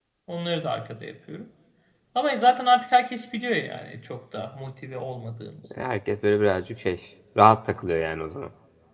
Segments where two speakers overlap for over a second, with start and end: none

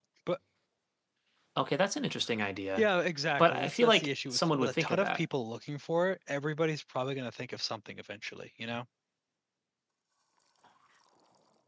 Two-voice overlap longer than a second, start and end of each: 3.4-5.2

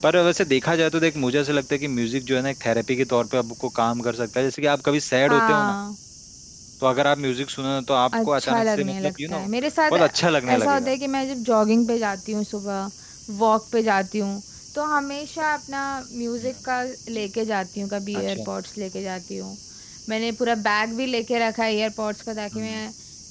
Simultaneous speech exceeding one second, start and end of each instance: 8.1-9.4

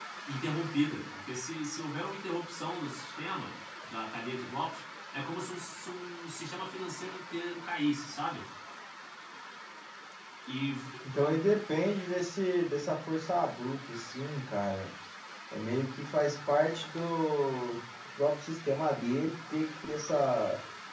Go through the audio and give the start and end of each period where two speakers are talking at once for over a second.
none

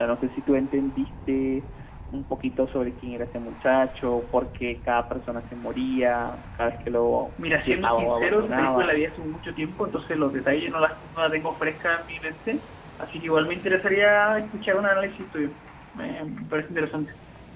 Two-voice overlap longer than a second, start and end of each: 7.5-9.0

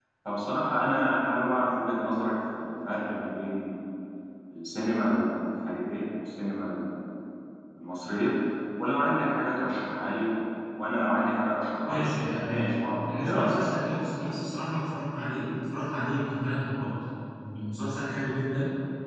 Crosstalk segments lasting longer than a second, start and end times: 11.9-13.5

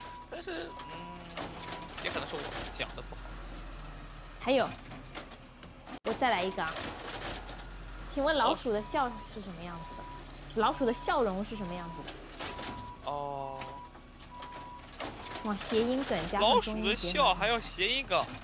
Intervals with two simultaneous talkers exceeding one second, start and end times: 16.4-17.7

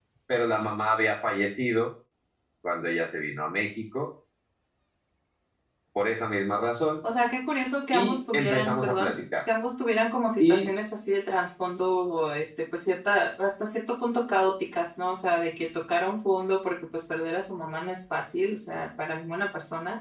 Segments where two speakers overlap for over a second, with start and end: 7.9-9.2

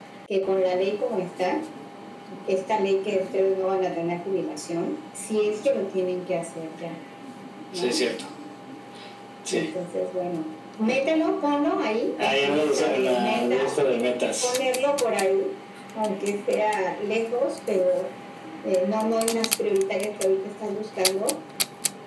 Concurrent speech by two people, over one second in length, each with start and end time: 12.2-14.5

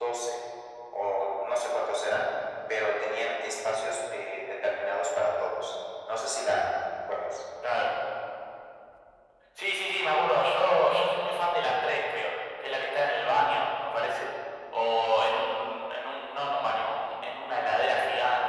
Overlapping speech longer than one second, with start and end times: none

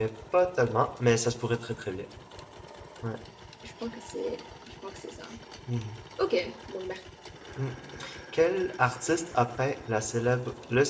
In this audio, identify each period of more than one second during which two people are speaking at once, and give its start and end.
none

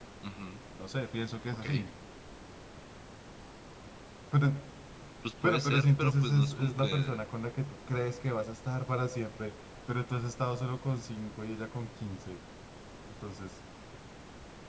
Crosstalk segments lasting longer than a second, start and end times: 5.4-7.2

